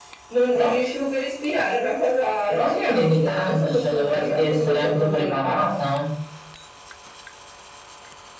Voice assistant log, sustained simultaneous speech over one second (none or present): present